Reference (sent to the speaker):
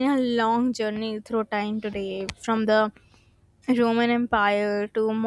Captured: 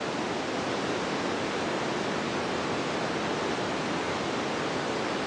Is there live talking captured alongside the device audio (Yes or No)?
No